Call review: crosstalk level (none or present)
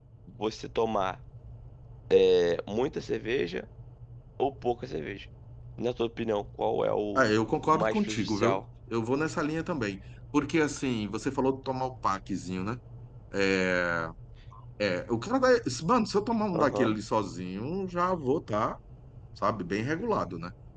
present